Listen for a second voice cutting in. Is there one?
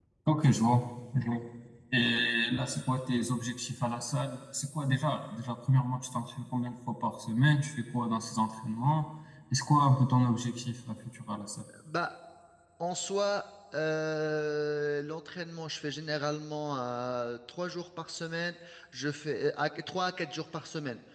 No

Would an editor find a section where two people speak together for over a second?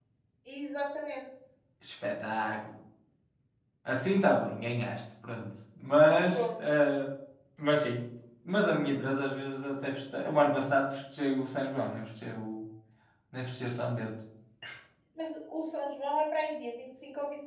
No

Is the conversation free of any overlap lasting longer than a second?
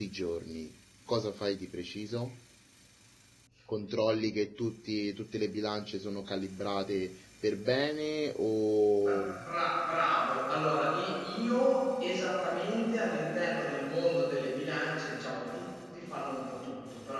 Yes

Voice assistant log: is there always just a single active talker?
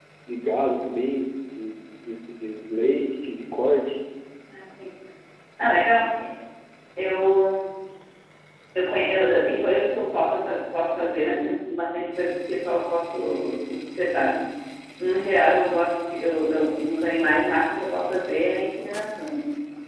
Yes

